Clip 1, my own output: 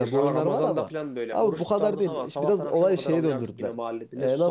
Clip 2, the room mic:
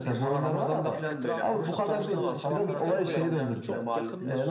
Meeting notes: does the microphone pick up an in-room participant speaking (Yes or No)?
Yes